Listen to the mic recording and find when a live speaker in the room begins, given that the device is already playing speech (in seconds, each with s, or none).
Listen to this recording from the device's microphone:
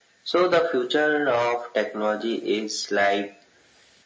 none